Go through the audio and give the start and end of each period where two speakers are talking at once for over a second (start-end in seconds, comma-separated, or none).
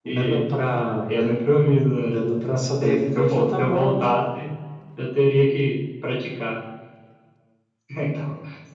2.8-4.2